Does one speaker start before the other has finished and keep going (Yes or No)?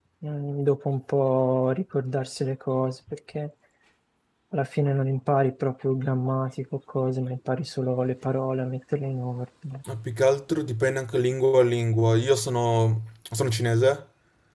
No